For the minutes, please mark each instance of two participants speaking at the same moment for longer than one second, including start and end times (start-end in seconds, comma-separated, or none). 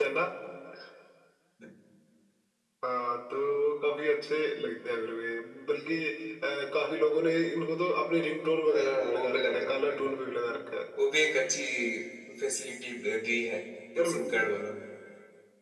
8.7-10.1